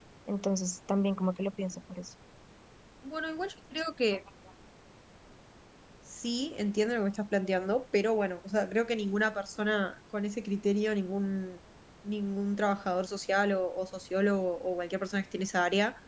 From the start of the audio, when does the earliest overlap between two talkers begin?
none

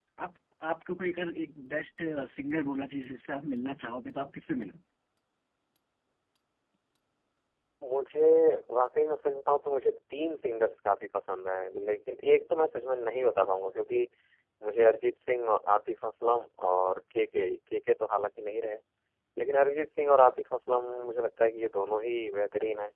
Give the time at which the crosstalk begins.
none

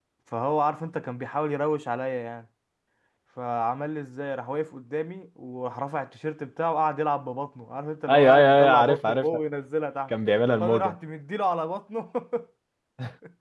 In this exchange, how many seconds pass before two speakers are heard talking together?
8.1 s

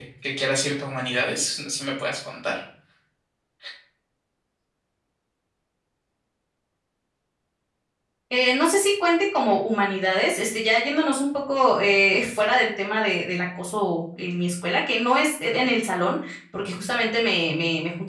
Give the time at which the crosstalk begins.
none

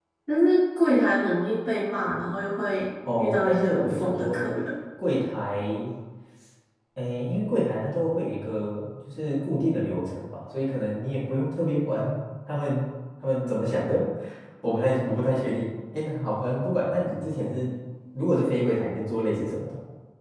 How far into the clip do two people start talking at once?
3.0 s

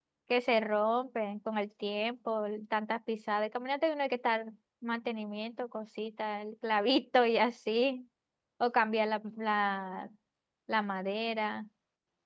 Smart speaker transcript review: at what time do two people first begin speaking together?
none

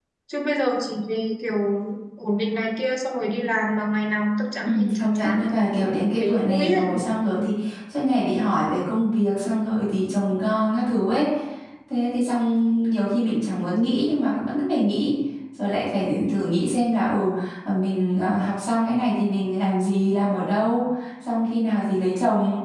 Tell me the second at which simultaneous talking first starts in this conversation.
4.6 s

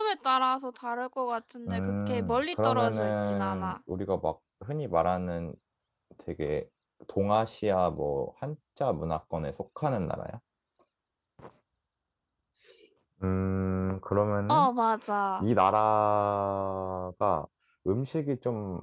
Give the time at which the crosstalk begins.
1.7 s

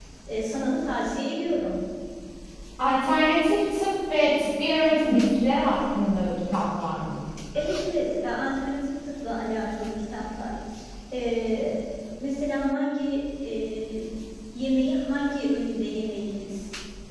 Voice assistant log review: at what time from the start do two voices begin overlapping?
none

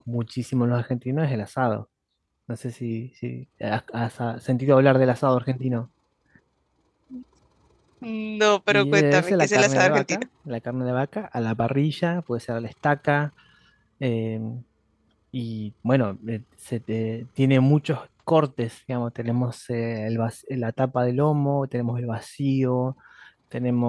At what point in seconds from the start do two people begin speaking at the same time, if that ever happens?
8.7 s

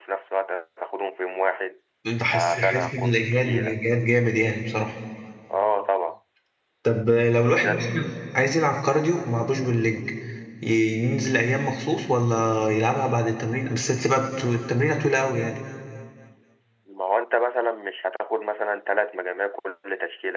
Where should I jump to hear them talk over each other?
2.3 s

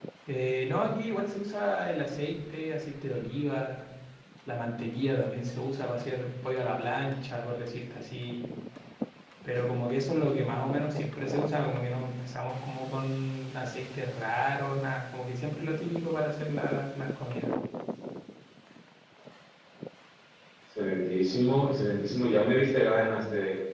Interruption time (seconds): none

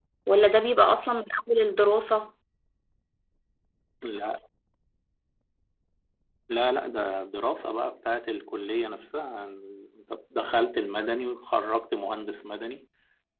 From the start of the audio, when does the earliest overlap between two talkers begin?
none

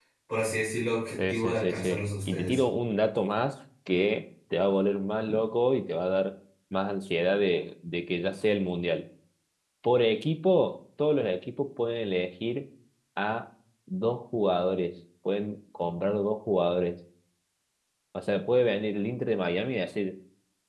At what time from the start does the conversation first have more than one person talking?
1.2 s

